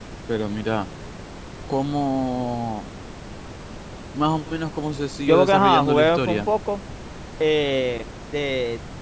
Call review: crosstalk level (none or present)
present